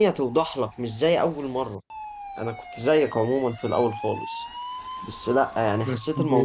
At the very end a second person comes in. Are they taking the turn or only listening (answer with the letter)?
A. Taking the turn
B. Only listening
B